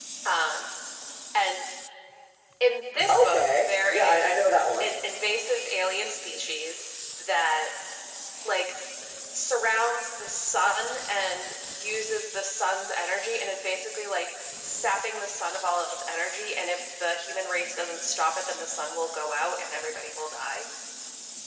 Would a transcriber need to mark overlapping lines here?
Yes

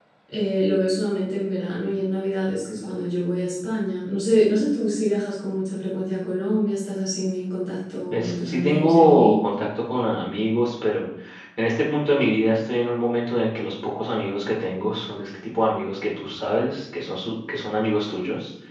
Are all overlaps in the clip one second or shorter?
No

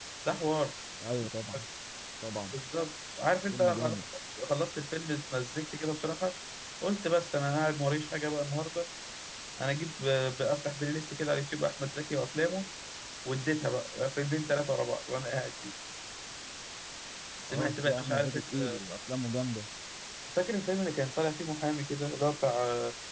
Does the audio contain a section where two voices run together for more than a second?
Yes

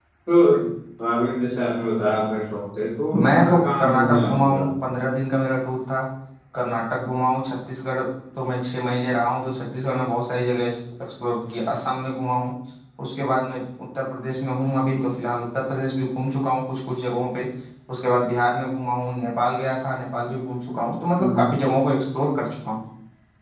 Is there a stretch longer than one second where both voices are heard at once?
Yes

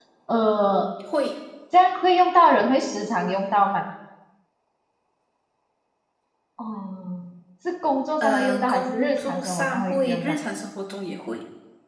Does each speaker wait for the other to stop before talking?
No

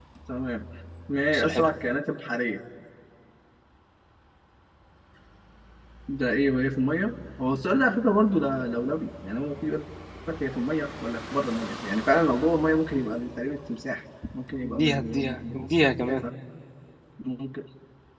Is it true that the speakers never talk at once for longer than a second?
No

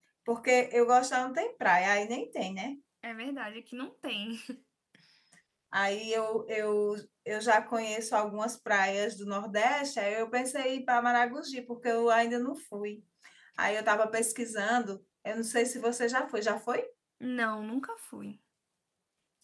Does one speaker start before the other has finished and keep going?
No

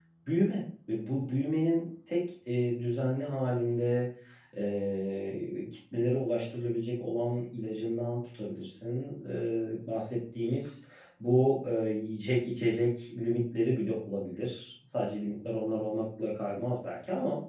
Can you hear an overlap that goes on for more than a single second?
No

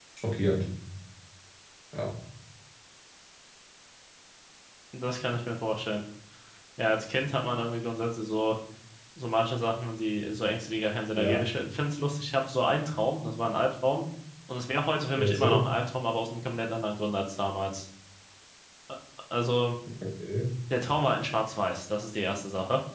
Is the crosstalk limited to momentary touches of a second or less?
Yes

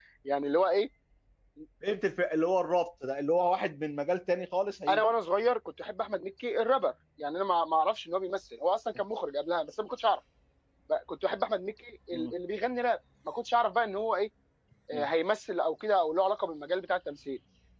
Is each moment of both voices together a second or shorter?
Yes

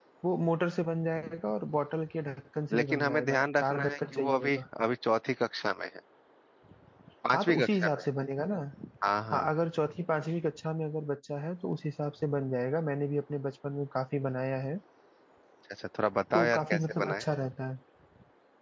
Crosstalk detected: Yes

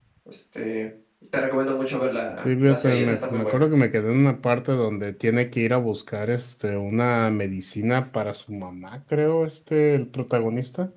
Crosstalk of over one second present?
Yes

